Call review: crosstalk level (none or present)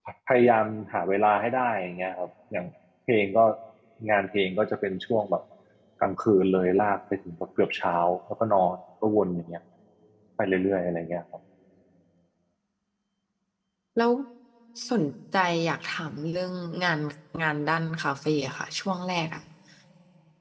none